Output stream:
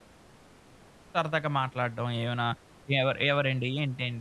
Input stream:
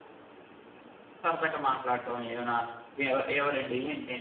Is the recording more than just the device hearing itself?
No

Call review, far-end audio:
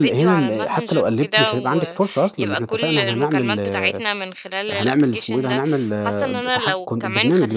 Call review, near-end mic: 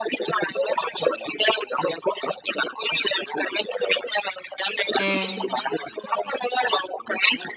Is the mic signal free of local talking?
No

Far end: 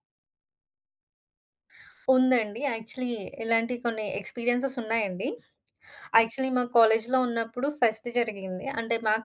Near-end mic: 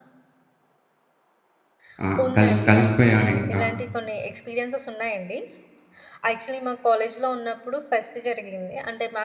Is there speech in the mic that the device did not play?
Yes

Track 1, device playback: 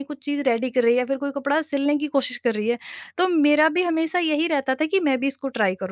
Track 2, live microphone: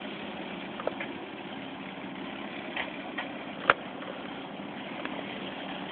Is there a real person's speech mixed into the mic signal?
No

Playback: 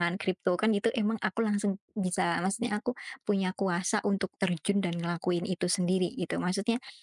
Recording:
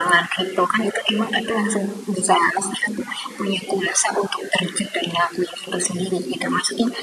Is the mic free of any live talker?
Yes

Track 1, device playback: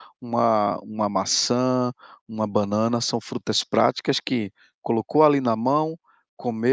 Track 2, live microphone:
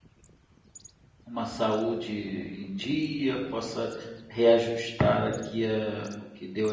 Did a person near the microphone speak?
Yes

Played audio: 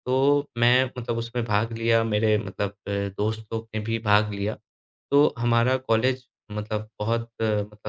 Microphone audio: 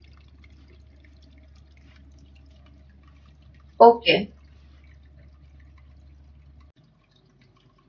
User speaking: Yes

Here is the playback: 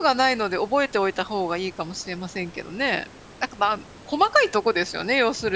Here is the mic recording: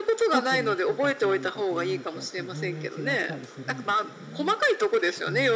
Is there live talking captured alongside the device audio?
Yes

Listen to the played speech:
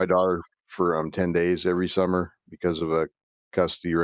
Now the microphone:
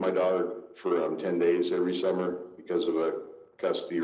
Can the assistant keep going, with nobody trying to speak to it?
Yes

